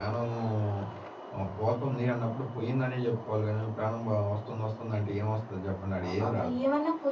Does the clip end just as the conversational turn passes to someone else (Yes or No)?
Yes